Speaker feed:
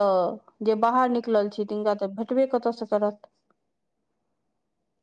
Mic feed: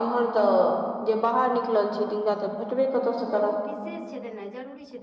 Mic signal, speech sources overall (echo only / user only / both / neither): both